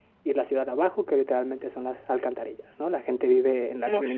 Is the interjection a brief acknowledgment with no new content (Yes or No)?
Yes